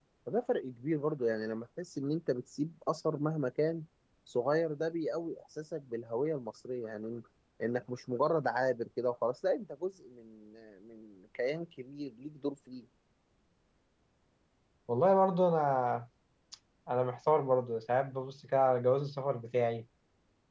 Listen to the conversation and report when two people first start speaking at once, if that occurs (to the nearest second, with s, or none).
none